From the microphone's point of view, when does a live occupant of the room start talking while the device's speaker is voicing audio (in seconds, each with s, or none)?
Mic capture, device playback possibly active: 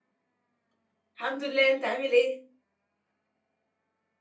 1.1 s